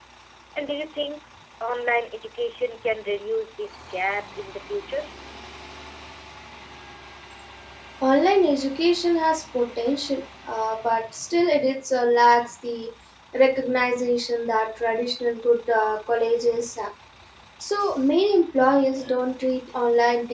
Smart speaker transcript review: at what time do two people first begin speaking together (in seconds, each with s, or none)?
none